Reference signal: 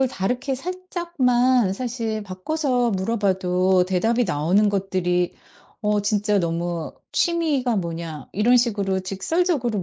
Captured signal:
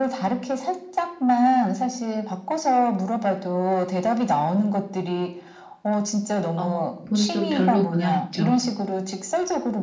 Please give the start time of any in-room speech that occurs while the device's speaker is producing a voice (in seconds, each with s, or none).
6.5 s